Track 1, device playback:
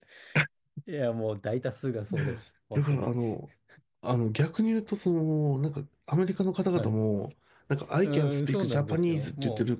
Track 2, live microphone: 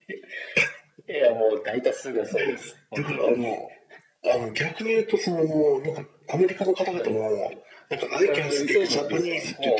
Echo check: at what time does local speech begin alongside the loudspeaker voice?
none

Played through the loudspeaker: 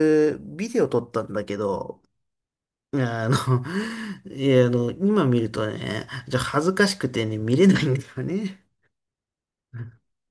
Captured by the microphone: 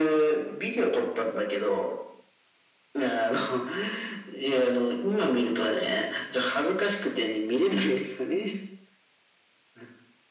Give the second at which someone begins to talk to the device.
none

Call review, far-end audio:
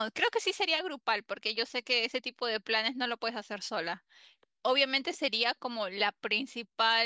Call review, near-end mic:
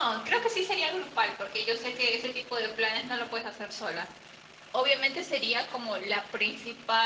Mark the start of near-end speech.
none

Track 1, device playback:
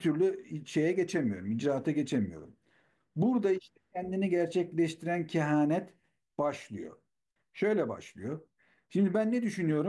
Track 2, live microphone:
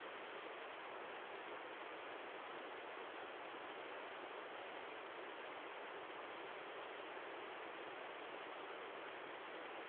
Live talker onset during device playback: none

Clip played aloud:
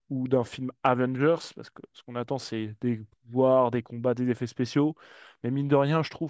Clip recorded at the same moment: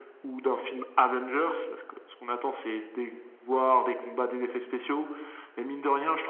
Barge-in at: none

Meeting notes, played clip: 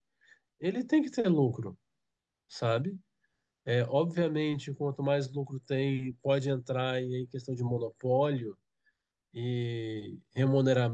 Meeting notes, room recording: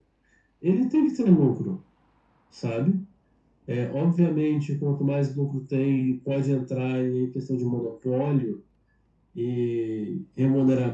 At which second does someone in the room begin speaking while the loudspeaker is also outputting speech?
none

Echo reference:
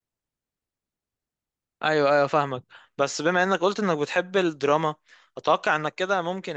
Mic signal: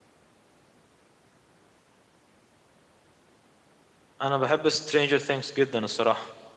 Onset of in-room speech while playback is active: 4.2 s

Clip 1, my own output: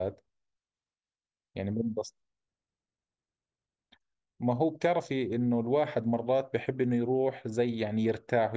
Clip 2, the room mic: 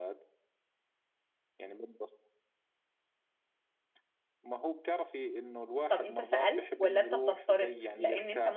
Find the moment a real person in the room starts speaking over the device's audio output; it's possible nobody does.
5.9 s

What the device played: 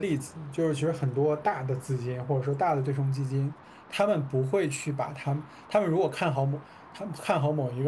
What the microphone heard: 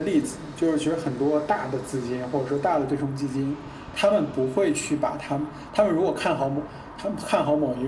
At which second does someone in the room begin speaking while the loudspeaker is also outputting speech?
none

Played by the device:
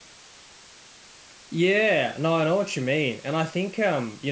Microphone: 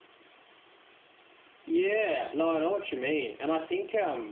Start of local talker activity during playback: none

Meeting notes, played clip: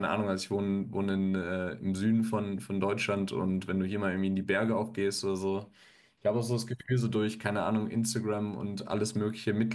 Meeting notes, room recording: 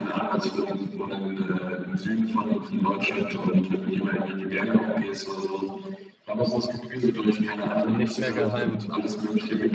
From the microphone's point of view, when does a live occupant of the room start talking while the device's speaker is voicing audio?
7.7 s

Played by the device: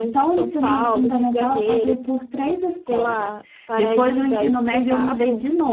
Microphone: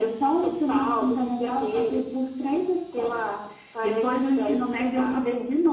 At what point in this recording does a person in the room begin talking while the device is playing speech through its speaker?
none

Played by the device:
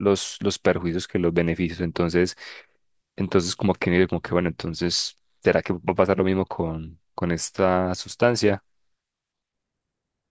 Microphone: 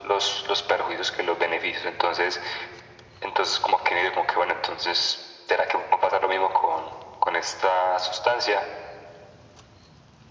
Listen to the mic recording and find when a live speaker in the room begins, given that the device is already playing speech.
none

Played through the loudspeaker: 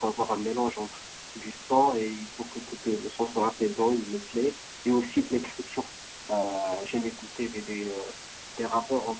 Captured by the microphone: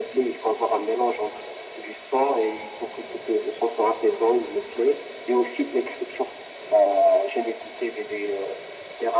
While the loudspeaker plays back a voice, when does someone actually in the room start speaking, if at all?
none

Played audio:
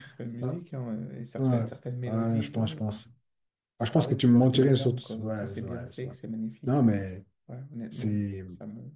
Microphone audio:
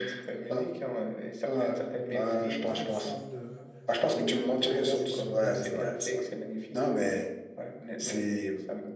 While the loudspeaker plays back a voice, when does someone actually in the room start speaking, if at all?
2.0 s

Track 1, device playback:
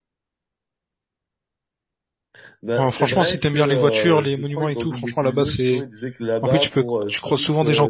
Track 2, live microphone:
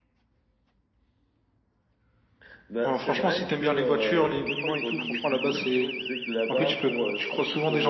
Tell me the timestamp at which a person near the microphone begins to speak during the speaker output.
none

